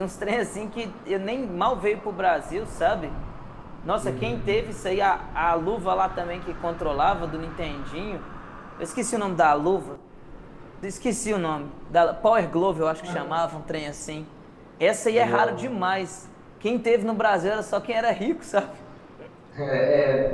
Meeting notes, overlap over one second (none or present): none